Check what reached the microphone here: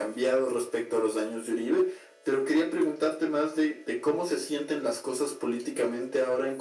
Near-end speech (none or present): none